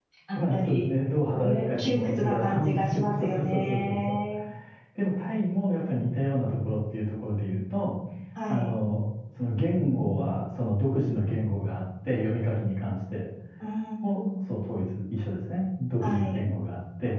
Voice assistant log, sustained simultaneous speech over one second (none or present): present